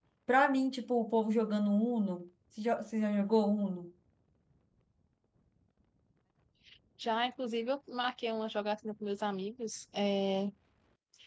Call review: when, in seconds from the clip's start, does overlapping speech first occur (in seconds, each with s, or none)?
none